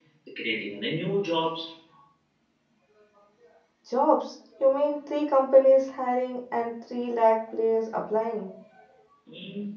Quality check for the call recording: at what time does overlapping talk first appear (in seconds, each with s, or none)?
none